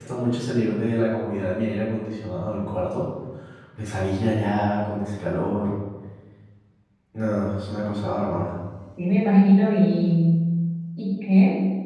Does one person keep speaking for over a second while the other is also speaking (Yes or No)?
No